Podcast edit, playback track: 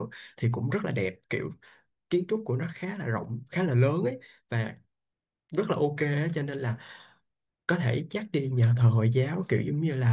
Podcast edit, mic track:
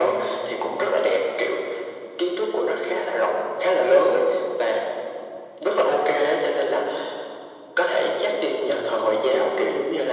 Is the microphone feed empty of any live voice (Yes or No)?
Yes